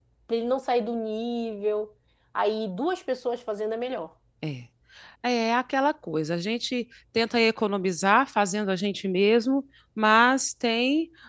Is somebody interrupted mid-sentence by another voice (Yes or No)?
No